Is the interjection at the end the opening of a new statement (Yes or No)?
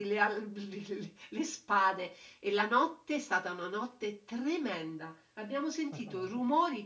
No